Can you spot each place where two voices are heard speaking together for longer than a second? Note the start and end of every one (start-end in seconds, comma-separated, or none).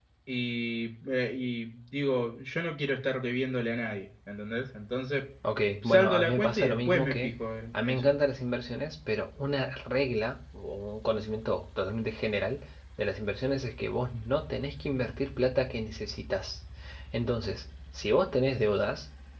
5.8-7.3